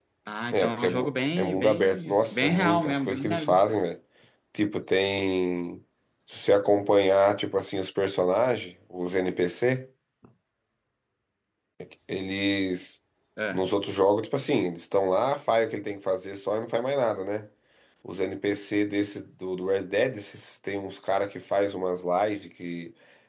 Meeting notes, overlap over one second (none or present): present